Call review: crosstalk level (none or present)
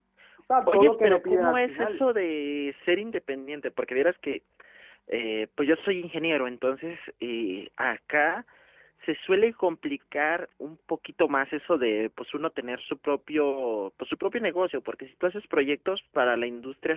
present